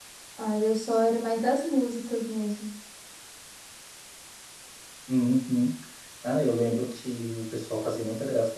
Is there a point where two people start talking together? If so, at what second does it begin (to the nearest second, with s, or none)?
none